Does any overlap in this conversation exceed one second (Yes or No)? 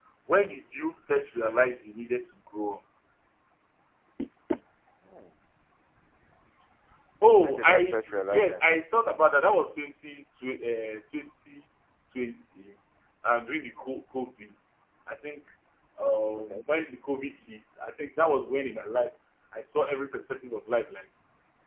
Yes